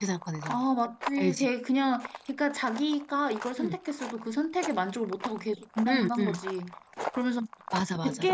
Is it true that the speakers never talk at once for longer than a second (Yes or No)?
Yes